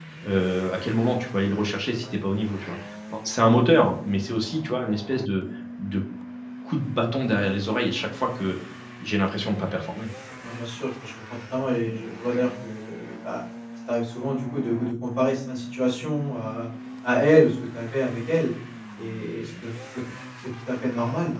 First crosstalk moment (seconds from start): none

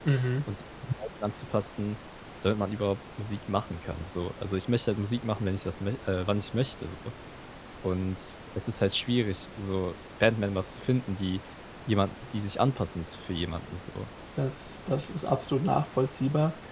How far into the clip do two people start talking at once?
none

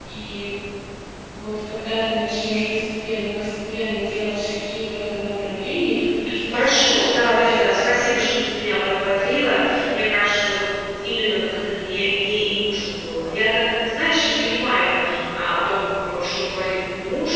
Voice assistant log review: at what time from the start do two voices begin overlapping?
6.5 s

